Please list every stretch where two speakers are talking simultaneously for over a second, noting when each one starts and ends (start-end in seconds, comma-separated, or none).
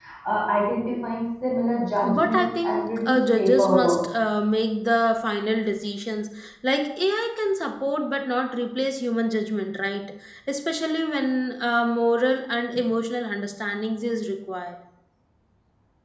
2.2-4.0